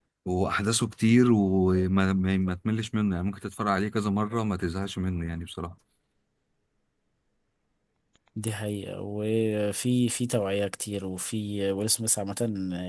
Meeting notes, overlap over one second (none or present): none